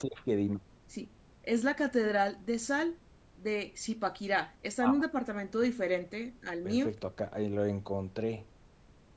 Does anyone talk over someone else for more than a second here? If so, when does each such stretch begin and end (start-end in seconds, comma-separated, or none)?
none